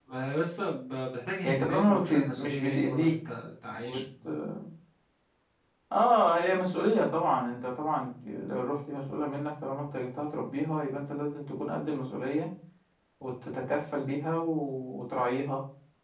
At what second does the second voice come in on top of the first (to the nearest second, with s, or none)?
1 s